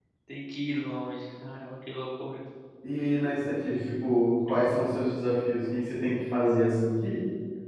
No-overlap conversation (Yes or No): Yes